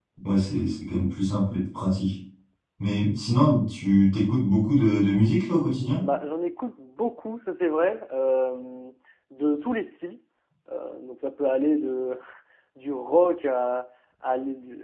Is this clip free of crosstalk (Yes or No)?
Yes